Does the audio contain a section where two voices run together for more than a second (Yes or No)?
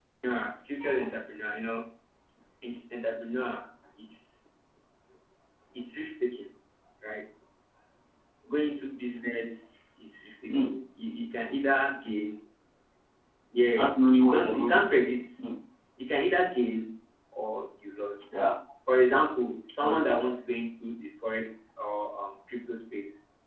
Yes